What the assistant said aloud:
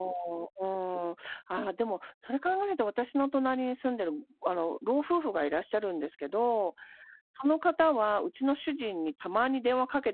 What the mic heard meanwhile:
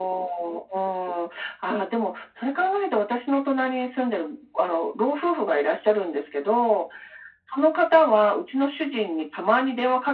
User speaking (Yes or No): No